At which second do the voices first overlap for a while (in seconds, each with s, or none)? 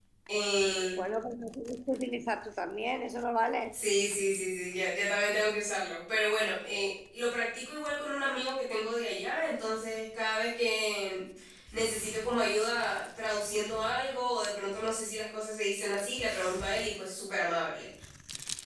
none